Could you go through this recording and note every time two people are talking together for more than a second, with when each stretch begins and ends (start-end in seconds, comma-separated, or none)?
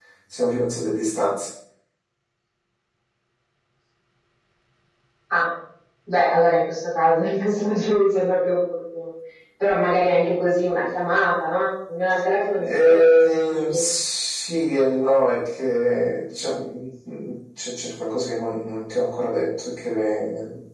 12.6-13.8